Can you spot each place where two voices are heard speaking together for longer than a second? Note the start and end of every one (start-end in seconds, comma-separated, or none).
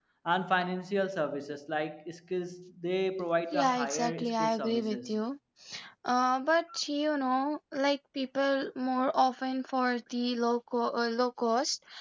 3.5-5.2